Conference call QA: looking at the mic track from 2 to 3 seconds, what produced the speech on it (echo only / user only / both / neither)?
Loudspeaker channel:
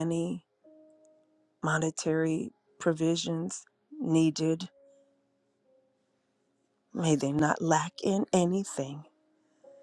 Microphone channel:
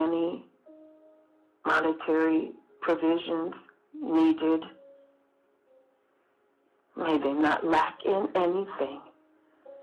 echo only